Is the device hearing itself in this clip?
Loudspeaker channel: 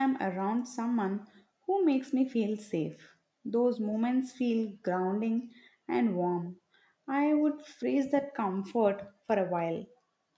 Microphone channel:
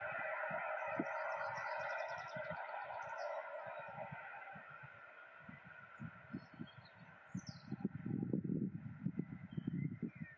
No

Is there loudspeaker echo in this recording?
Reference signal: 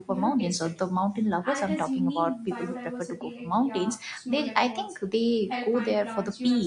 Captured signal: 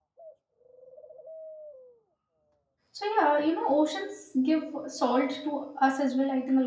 No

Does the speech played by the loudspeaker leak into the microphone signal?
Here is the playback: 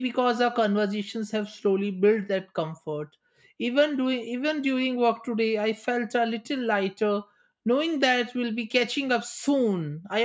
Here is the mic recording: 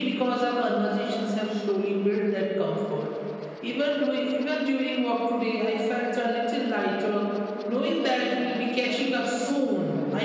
Yes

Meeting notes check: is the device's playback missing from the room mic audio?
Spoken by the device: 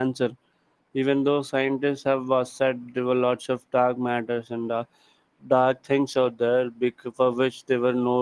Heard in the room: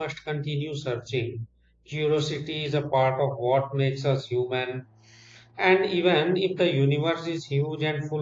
Yes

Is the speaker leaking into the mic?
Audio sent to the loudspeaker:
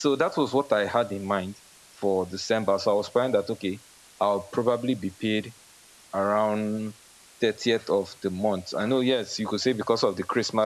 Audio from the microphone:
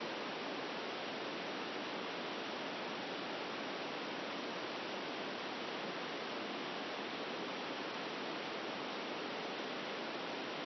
No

